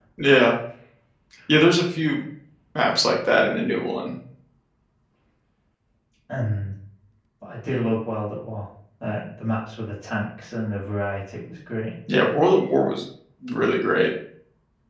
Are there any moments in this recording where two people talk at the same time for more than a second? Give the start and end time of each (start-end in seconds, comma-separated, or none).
none